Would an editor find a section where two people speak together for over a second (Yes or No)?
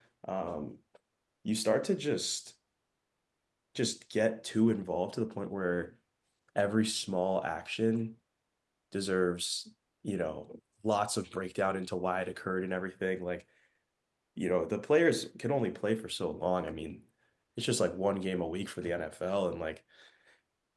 No